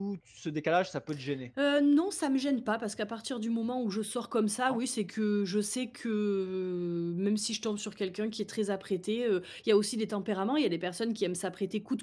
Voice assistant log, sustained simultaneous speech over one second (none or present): none